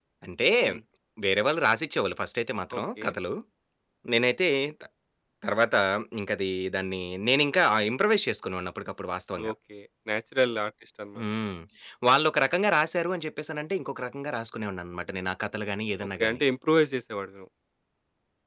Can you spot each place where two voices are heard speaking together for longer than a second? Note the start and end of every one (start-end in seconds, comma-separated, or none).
none